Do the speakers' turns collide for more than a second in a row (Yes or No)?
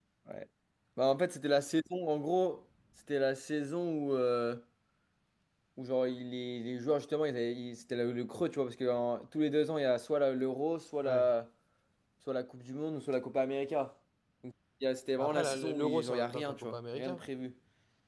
Yes